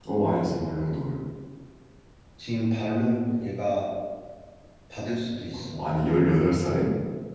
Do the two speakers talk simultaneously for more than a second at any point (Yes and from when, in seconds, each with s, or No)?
No